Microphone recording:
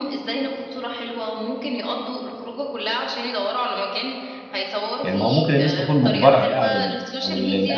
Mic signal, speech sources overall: both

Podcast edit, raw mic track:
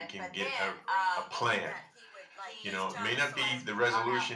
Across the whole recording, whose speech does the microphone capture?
both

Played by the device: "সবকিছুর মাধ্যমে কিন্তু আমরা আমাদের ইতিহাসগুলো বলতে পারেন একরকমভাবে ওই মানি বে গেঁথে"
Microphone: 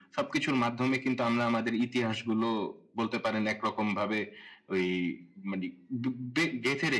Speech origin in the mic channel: echo only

